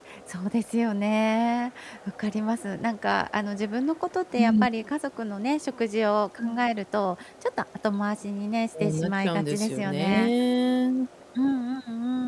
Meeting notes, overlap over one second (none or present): present